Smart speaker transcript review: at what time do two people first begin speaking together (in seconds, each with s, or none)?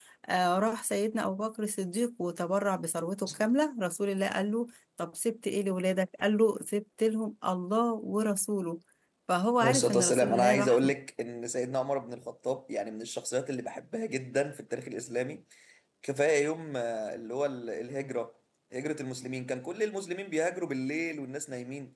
9.6 s